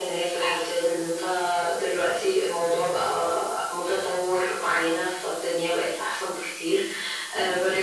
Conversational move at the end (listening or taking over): listening